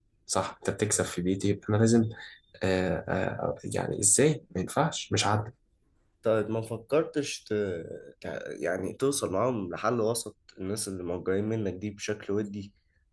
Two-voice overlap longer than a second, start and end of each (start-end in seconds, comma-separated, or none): none